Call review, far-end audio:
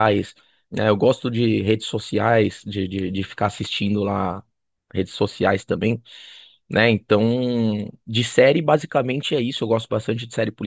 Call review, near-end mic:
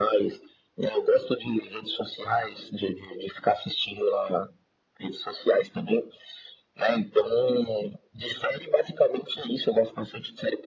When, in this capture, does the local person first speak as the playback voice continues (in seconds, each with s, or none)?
none